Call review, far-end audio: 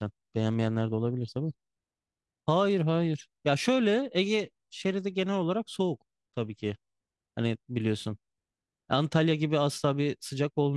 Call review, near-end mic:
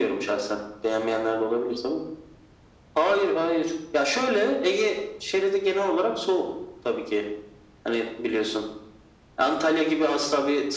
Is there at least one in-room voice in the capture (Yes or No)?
No